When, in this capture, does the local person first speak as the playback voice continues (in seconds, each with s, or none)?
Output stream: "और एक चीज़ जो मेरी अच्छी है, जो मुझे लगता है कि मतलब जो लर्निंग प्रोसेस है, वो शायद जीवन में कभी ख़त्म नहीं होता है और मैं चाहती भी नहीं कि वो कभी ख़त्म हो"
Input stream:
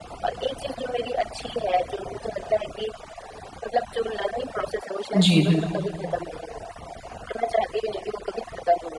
5.1 s